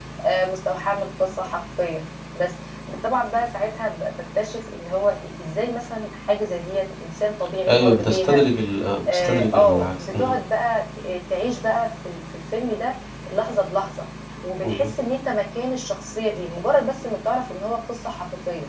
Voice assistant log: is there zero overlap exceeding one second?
No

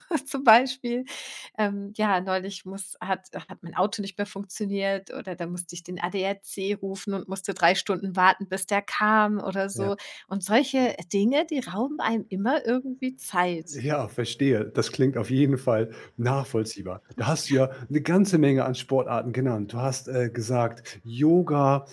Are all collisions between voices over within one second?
Yes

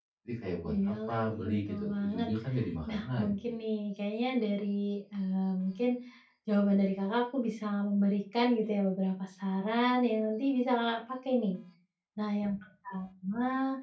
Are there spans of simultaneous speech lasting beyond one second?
Yes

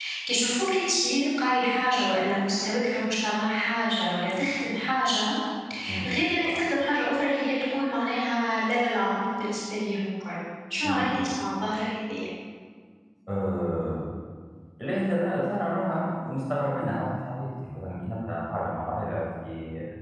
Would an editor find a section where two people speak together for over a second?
No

